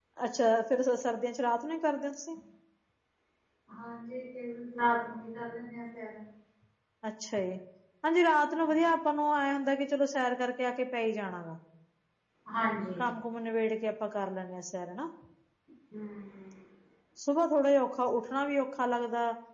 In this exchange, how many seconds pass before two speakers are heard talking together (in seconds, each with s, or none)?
none